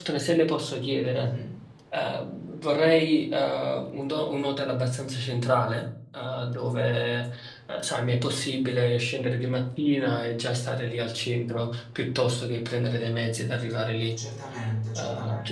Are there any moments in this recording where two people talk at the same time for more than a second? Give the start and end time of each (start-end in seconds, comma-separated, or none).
none